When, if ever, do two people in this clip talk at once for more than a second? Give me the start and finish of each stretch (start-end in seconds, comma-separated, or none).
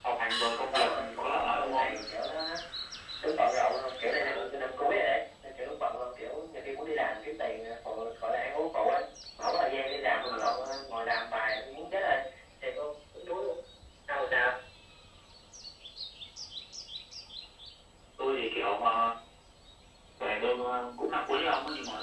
0.6-1.9